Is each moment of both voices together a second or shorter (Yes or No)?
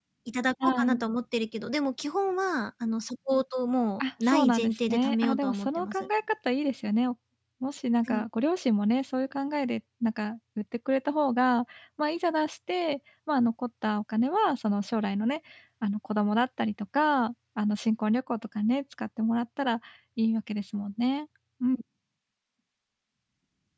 No